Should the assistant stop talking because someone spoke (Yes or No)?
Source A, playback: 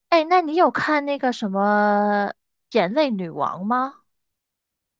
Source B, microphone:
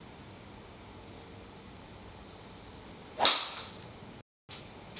No